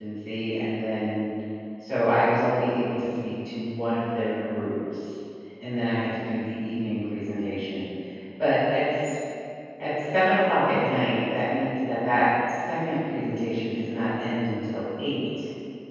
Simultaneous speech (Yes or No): No